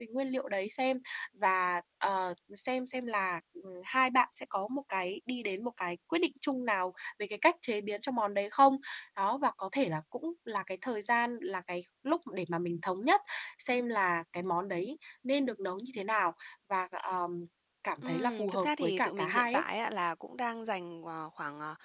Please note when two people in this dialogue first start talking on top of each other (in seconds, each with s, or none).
18.0 s